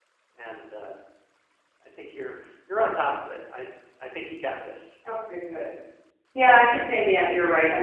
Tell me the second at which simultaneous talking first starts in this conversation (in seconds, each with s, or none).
none